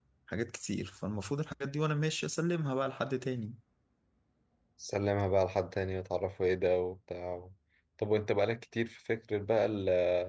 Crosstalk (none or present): none